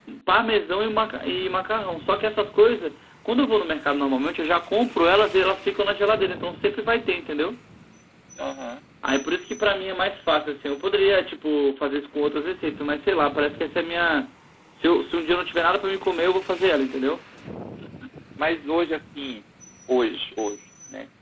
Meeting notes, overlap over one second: none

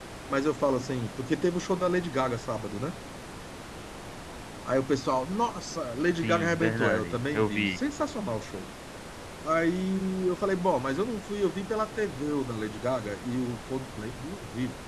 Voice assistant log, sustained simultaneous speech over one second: present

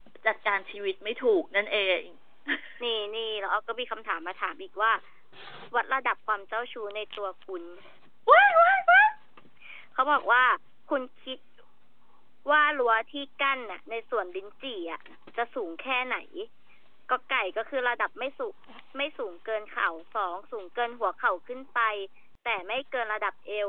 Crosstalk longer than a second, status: none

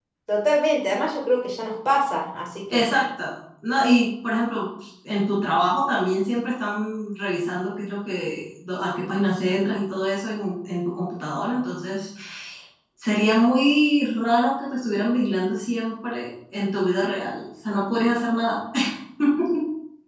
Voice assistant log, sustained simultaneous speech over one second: none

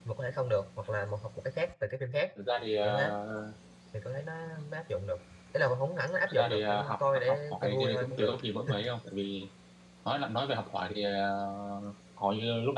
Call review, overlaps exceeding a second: present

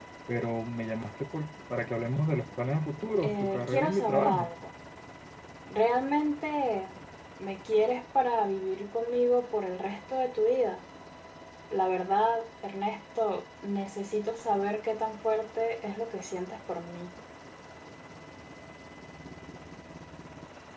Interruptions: present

